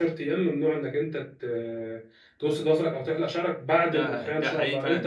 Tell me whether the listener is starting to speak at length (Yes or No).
Yes